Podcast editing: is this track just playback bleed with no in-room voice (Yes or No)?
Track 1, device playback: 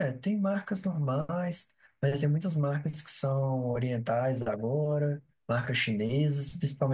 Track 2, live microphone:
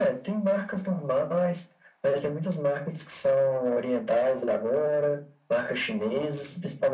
Yes